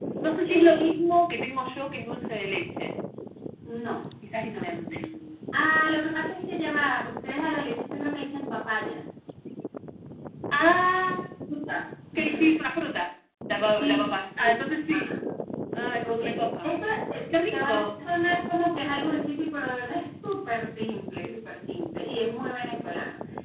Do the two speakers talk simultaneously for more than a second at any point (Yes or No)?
Yes